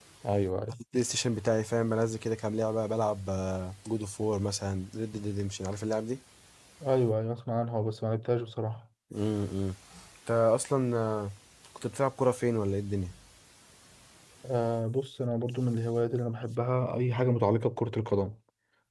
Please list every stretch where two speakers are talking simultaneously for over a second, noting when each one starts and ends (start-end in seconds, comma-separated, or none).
none